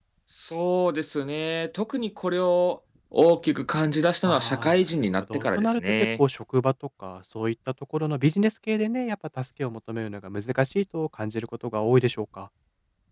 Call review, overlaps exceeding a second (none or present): present